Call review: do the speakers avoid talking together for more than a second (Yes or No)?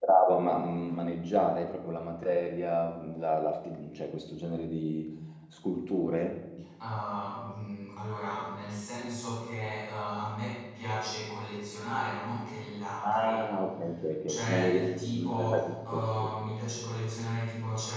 No